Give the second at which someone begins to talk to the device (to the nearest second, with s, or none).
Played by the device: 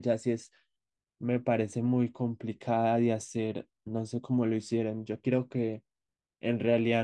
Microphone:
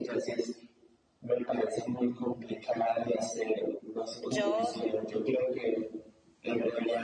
4 s